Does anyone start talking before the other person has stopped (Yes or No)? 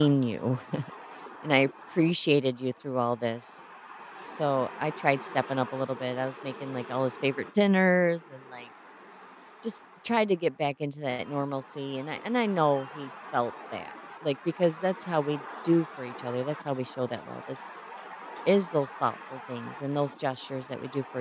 No